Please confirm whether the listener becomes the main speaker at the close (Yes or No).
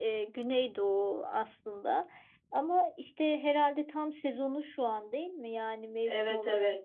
Yes